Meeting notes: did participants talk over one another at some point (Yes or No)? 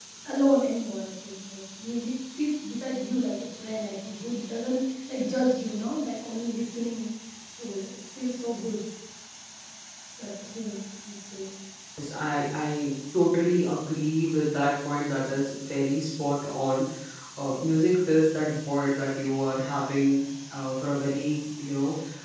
No